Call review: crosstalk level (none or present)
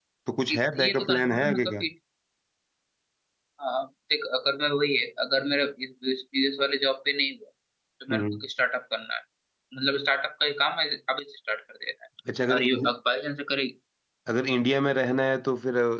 present